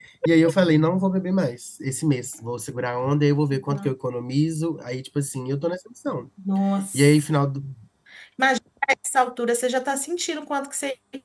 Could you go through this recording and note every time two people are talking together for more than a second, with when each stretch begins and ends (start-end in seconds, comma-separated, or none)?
none